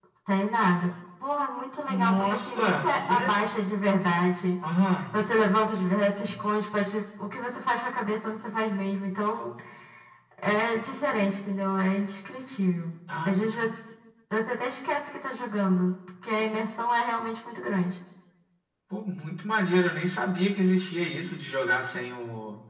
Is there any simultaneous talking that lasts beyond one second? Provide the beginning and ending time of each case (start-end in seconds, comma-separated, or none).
1.9-3.3